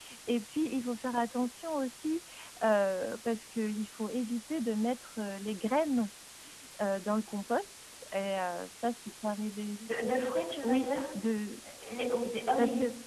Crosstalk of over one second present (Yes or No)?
No